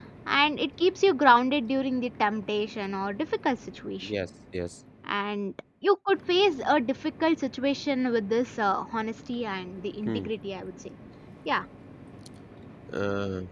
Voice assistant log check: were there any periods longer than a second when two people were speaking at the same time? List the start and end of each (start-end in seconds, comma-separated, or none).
none